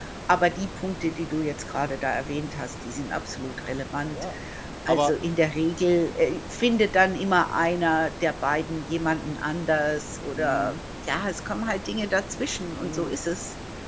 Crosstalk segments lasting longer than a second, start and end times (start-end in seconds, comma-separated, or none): none